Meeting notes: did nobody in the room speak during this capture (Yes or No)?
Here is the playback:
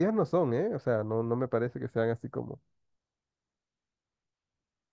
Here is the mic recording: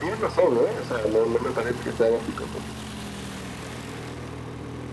Yes